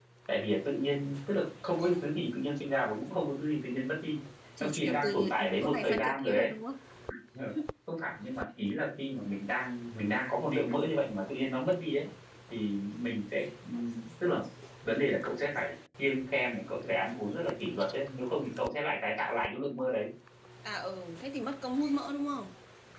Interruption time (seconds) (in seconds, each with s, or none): 4.6 s